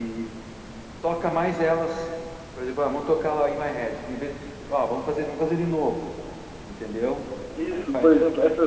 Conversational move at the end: taking over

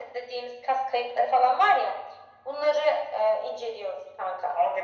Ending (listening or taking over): taking over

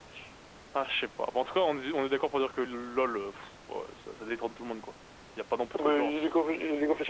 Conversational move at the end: taking over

